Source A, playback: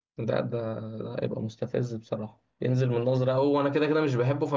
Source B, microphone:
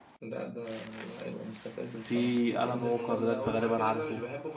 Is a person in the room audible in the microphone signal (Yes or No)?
Yes